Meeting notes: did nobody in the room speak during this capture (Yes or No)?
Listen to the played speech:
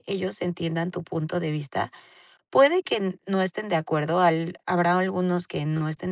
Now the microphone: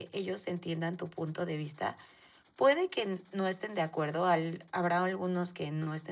Yes